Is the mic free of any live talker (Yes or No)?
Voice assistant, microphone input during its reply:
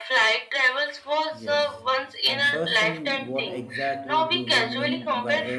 No